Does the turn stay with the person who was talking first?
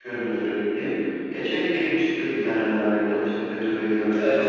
No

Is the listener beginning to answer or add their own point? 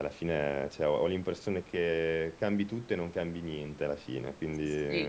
Yes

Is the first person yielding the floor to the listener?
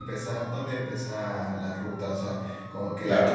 Yes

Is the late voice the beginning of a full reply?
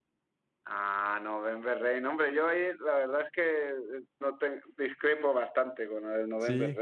No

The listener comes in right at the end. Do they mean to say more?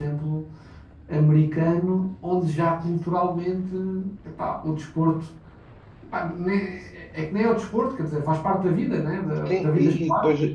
Yes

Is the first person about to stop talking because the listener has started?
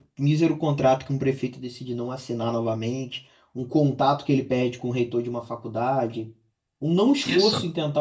No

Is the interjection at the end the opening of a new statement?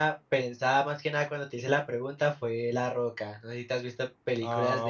Yes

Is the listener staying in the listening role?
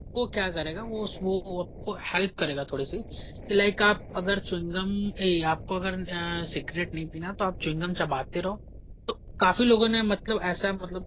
Yes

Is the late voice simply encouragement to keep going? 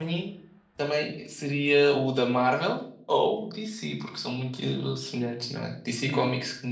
No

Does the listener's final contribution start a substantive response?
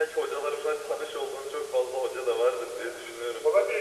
Yes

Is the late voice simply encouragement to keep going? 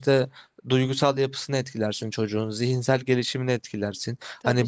Yes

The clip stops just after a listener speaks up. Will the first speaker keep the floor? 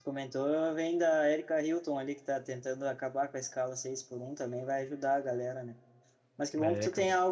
Yes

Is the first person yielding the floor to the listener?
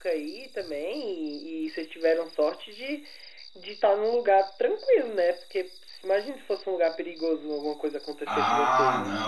Yes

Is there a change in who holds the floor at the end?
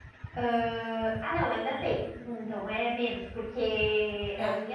No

